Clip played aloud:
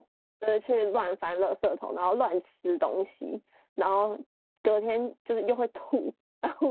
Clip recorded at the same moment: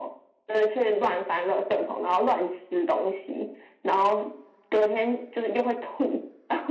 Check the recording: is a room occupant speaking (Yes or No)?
No